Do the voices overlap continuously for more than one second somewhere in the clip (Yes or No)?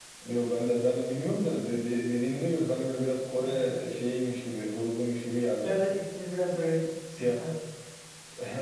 No